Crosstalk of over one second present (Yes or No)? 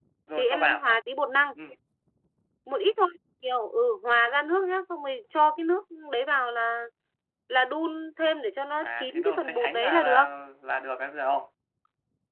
Yes